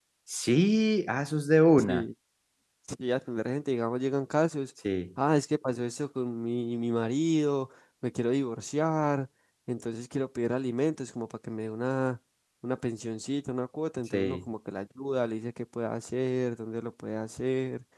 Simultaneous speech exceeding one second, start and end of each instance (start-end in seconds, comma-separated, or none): none